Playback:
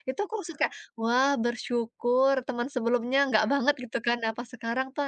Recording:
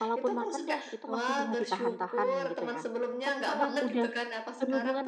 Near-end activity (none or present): present